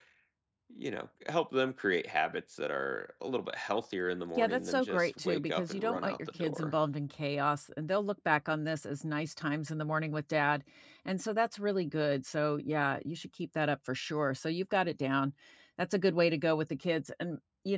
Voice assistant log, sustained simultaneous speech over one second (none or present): present